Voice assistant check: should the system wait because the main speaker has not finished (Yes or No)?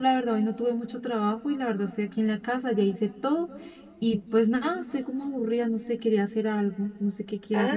No